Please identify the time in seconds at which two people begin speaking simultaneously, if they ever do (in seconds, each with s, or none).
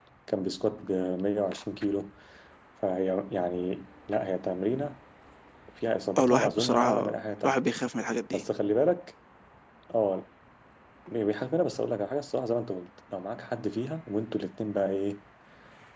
6.2 s